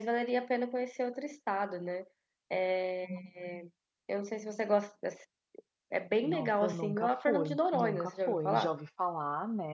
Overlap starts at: 6 s

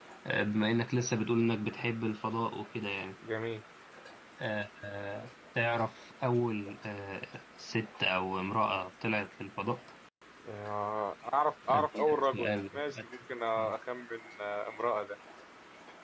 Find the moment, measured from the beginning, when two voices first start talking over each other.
12 s

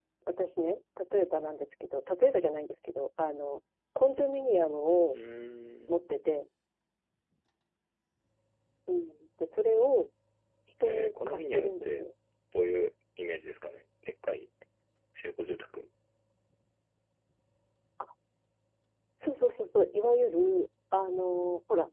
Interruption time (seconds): 11 s

